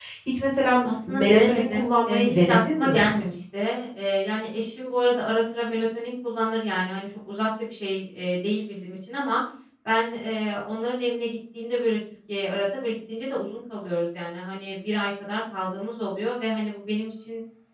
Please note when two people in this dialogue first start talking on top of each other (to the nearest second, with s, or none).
1 s